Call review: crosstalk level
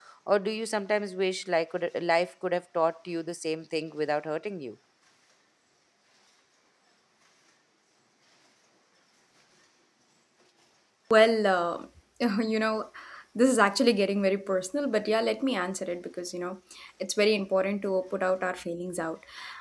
none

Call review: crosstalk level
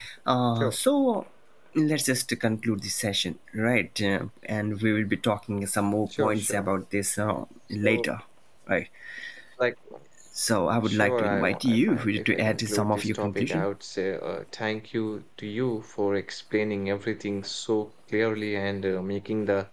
present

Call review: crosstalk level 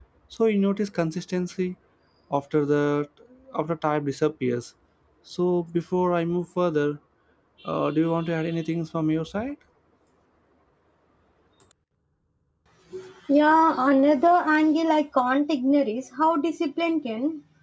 none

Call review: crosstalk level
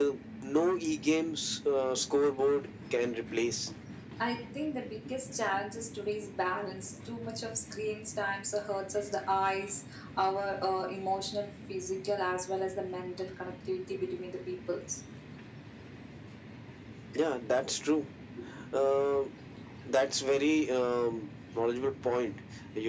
none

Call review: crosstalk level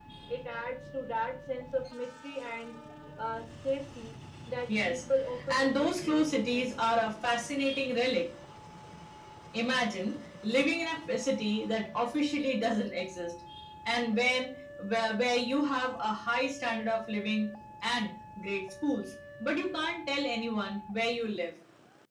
present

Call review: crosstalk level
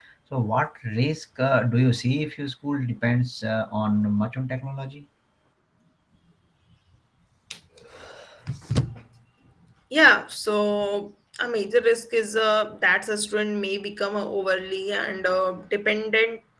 none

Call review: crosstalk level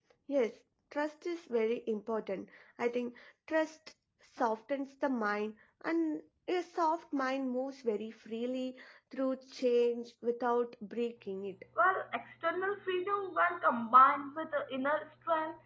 none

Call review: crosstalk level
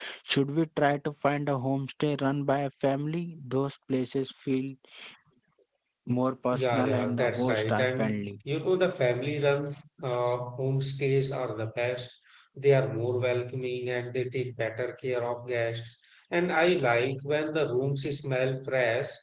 present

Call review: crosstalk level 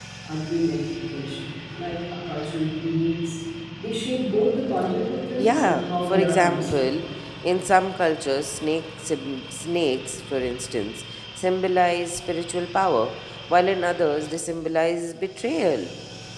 present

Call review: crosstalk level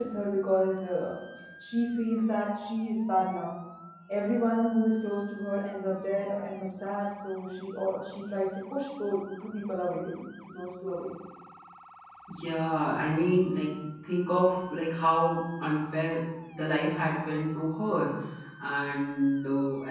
none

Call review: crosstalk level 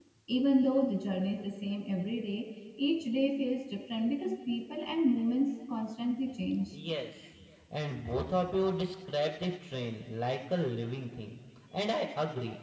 none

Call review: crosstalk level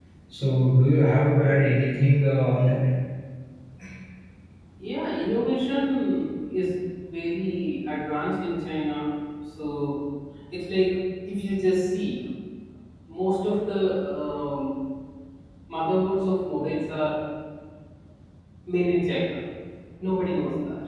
none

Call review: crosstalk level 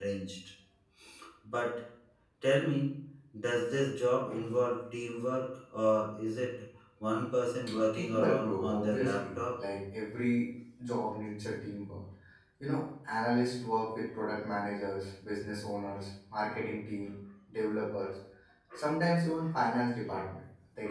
present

